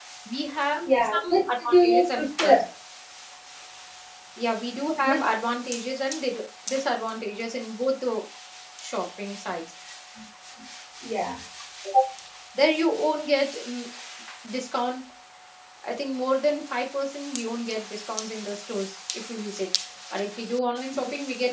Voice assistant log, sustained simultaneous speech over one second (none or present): present